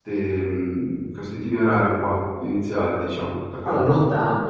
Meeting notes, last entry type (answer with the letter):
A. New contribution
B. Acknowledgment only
A